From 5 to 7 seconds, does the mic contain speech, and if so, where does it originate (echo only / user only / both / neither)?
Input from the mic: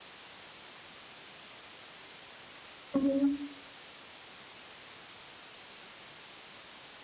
neither